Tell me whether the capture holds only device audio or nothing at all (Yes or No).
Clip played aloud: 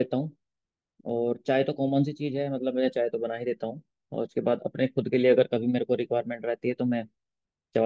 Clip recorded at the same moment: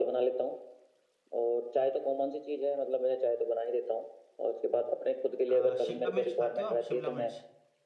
No